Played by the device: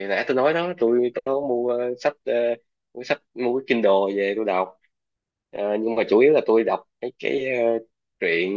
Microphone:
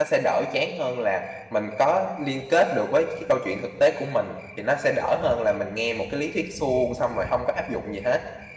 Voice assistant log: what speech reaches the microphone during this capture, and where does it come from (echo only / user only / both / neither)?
user only